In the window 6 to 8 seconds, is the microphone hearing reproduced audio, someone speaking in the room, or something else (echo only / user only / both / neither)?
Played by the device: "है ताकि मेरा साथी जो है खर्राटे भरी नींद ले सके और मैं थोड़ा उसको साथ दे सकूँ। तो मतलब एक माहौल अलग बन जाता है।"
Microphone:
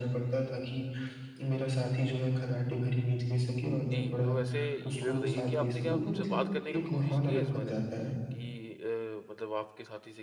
both